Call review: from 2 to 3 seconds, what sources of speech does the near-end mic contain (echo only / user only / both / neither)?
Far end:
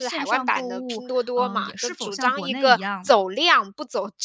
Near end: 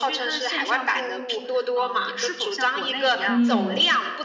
echo only